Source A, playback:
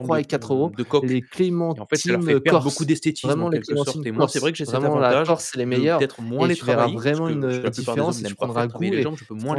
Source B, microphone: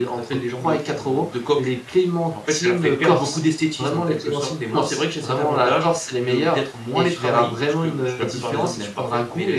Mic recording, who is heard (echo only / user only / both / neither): echo only